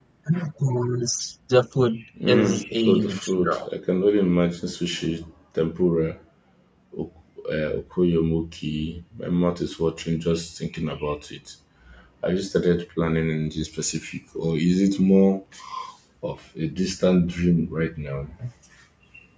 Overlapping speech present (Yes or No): Yes